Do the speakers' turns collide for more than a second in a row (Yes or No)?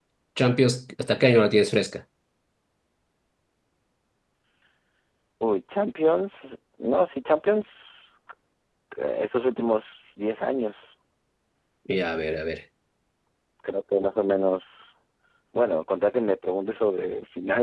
No